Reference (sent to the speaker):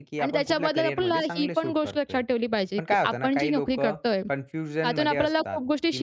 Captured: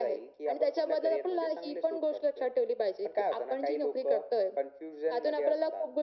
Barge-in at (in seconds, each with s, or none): none